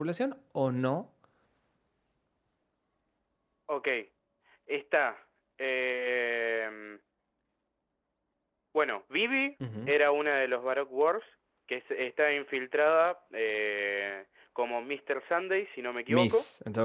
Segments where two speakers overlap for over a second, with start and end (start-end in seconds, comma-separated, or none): none